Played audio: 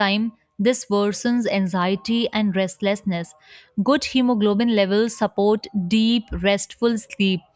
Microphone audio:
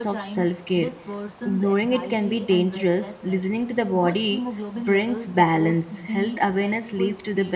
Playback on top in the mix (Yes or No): No